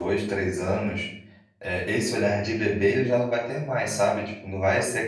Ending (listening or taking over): listening